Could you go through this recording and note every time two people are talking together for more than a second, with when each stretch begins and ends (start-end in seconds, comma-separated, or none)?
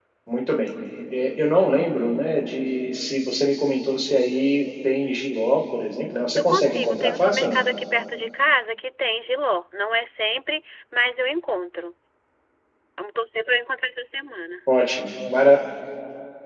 6.3-7.6